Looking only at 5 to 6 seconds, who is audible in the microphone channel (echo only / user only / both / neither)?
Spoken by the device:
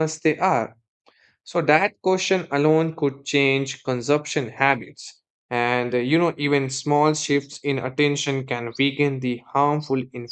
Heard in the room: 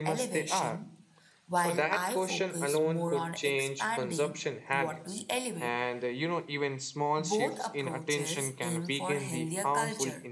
both